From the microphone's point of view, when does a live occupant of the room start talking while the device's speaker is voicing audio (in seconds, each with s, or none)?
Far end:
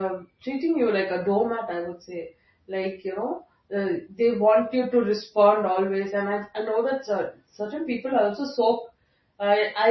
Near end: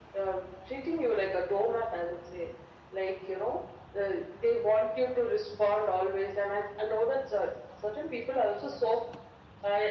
none